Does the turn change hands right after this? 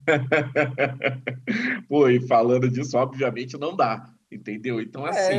Yes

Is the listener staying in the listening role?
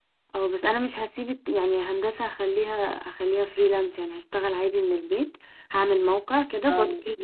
Yes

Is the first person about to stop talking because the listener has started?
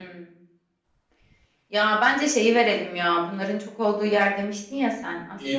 Yes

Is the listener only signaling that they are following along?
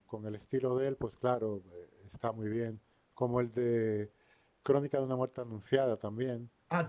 No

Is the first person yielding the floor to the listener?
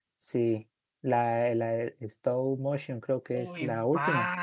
Yes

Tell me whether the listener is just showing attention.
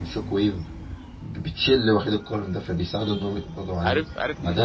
No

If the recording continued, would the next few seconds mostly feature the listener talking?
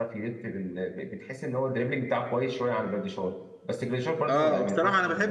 Yes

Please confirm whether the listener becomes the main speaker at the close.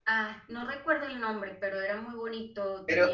No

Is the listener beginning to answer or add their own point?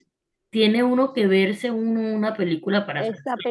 Yes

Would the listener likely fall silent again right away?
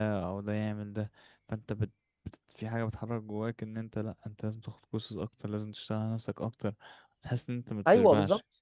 No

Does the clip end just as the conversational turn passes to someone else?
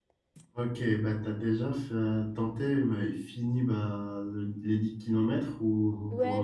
Yes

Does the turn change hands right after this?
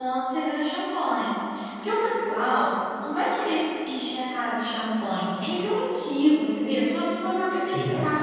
No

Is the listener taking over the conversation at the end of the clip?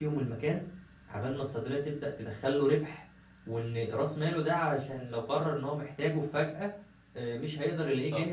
Yes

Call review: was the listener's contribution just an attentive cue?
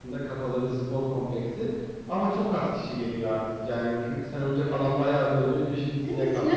No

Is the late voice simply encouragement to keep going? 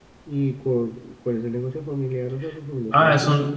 No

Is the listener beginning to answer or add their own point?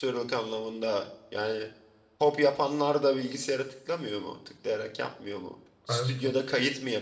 No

